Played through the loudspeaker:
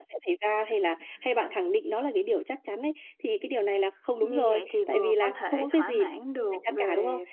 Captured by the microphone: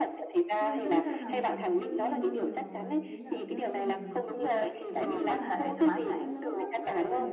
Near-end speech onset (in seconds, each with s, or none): 0.6 s